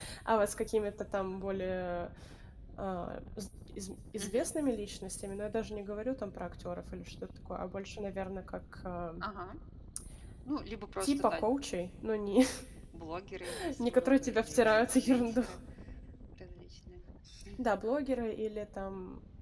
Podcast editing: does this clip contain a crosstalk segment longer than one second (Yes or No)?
Yes